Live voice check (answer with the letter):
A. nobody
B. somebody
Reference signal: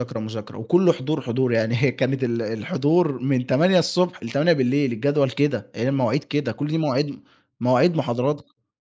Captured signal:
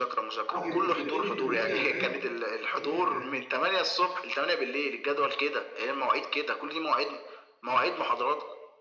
B